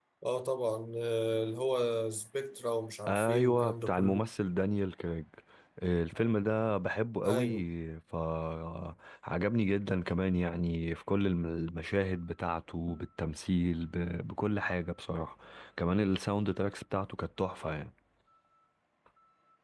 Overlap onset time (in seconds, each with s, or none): 3.1 s